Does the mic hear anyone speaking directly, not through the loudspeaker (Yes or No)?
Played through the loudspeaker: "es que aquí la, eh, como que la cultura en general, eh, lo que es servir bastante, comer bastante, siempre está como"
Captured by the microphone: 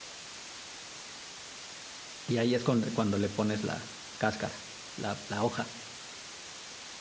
Yes